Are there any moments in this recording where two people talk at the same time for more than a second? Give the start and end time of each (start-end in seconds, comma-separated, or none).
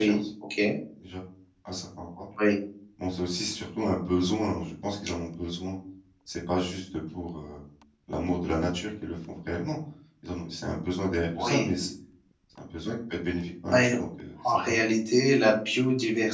none